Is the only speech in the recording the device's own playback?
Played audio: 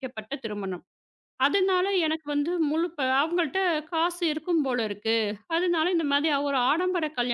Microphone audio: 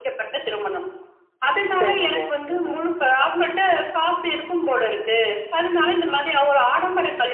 No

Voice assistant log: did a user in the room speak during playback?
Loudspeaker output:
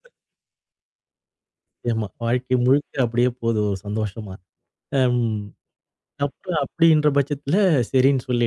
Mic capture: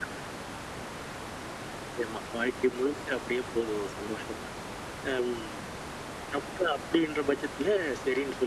No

